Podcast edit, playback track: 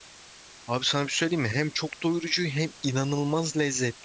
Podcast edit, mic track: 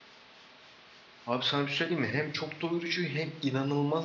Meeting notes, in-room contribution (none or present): none